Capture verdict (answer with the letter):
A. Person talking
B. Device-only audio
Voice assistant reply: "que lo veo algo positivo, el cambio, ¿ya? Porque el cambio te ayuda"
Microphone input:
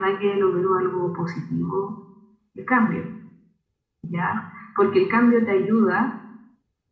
B